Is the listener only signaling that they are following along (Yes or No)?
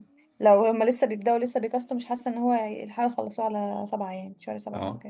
No